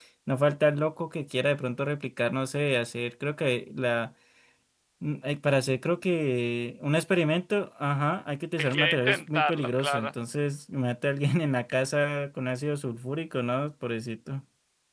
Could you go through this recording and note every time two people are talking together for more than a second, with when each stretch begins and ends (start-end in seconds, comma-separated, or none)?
8.6-10.1